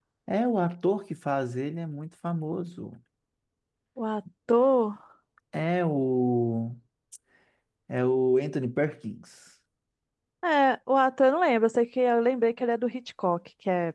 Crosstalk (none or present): none